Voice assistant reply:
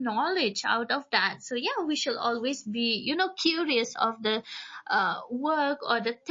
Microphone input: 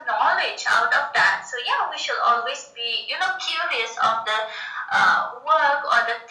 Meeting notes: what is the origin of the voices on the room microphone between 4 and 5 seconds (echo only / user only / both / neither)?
echo only